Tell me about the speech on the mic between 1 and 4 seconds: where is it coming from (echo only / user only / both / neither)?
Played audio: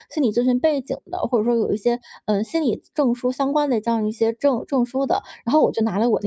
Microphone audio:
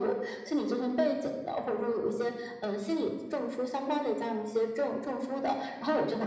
echo only